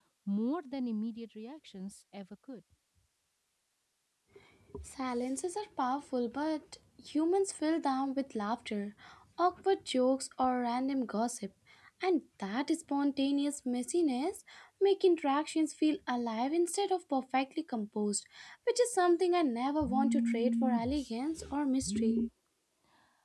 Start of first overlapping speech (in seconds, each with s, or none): none